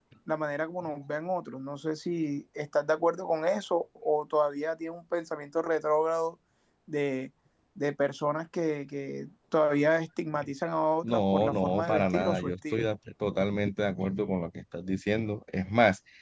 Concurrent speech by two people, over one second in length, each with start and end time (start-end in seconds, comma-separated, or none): 11.0-12.8